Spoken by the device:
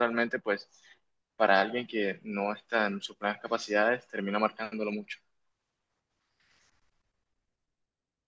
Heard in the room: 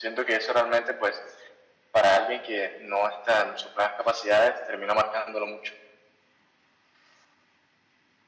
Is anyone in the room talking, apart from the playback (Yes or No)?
No